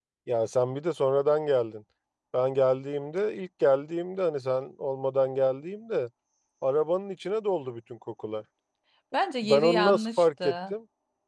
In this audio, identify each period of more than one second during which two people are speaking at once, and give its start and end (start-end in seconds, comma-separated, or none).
9.4-10.7